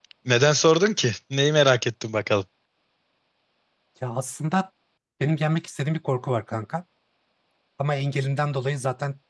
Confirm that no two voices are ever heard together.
Yes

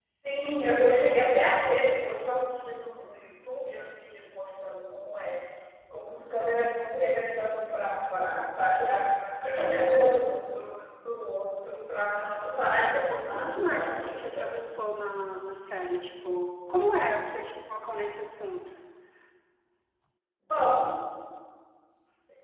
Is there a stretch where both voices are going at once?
Yes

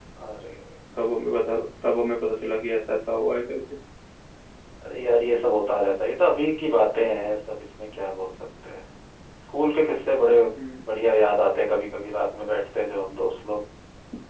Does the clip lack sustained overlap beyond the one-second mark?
Yes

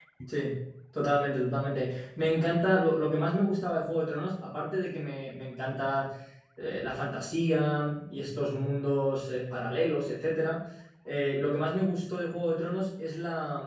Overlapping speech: No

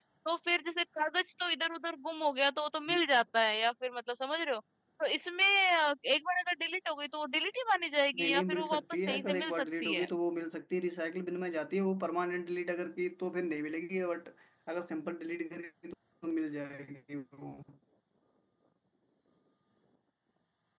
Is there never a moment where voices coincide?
No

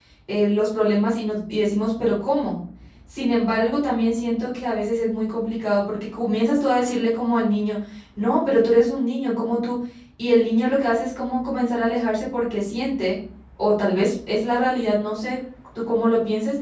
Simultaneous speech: No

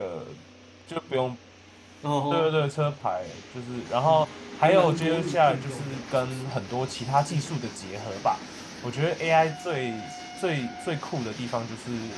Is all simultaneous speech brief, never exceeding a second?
No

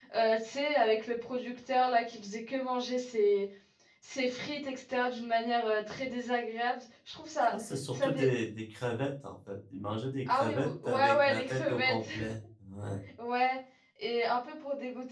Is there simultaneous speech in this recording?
Yes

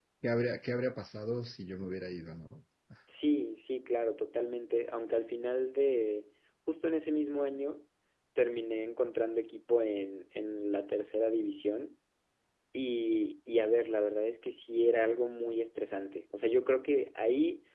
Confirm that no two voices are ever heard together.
Yes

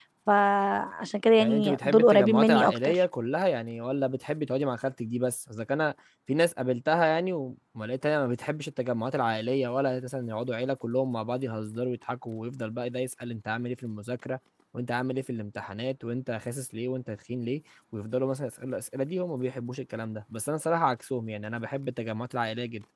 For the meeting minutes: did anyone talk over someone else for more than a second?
Yes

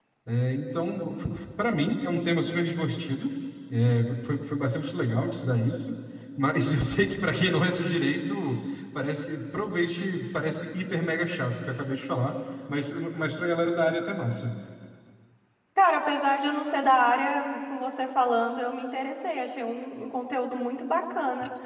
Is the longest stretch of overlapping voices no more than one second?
Yes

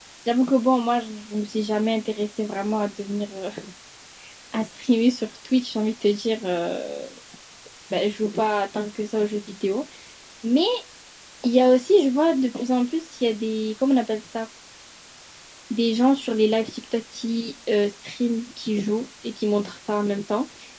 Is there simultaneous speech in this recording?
No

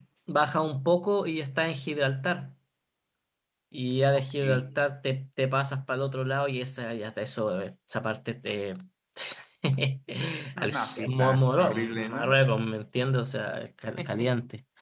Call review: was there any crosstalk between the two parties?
Yes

